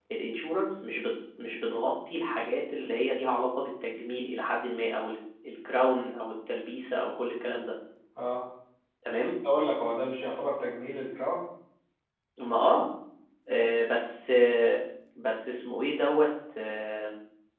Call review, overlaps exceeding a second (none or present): none